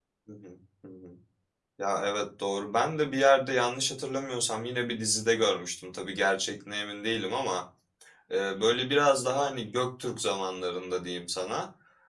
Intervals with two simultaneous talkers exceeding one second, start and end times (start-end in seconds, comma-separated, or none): none